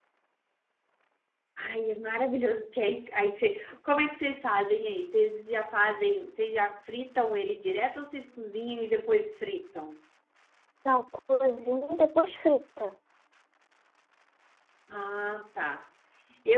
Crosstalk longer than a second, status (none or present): none